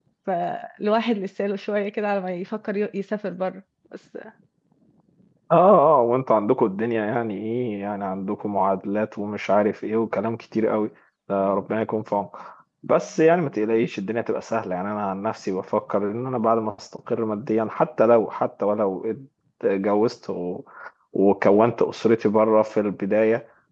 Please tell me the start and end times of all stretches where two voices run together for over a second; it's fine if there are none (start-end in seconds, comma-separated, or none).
none